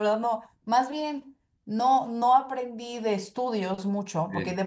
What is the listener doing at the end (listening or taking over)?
listening